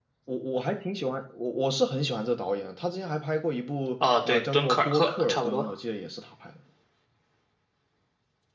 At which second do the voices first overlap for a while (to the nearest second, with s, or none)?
4 s